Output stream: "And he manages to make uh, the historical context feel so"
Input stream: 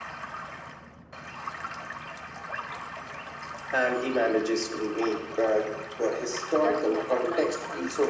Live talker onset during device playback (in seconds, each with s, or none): 6.6 s